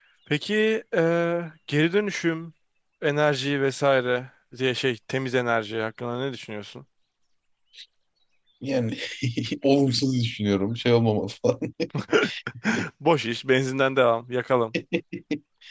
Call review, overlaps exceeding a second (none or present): none